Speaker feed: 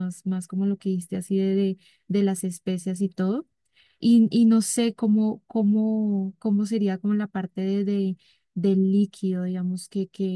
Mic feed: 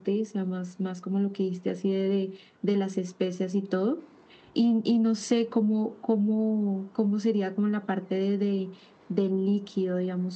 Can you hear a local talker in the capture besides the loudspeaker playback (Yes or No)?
No